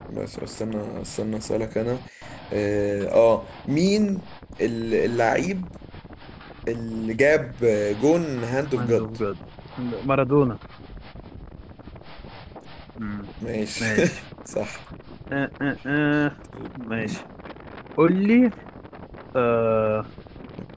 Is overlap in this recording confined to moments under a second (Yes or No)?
Yes